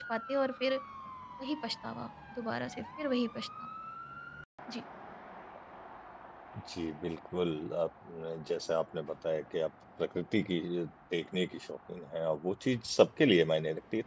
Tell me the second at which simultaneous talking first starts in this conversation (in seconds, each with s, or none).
none